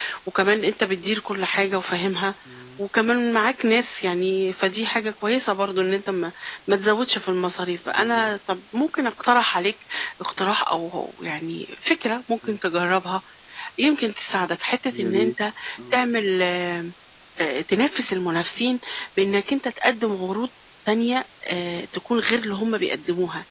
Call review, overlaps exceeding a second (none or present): none